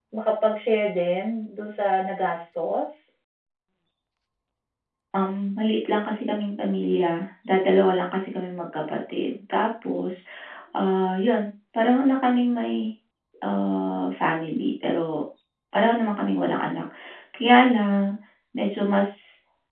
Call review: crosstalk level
none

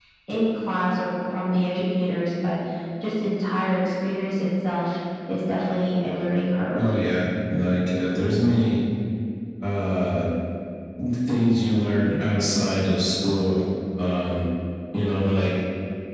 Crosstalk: none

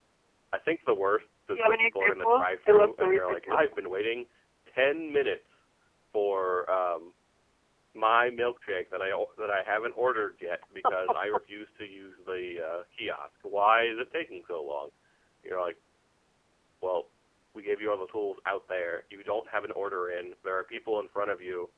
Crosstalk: present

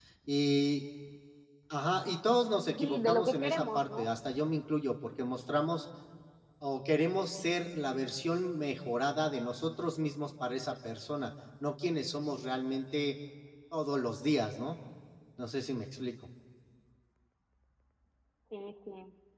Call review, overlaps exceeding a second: present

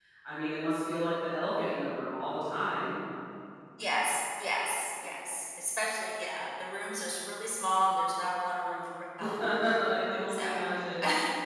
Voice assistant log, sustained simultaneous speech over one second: none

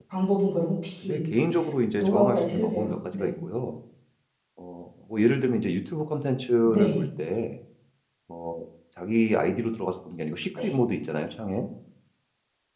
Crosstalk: present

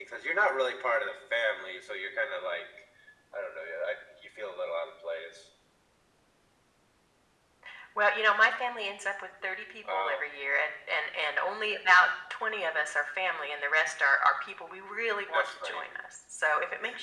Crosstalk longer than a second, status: none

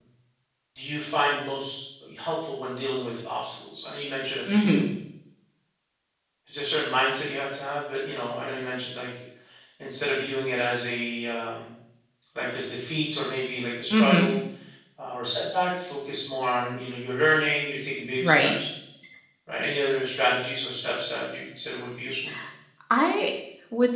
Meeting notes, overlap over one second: none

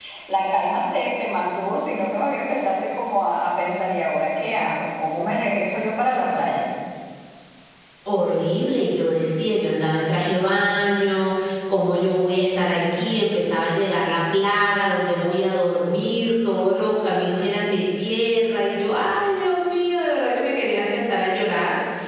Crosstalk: none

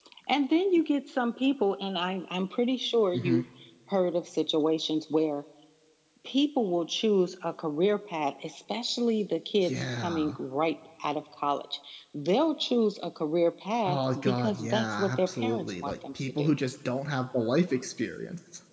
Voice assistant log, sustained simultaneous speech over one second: present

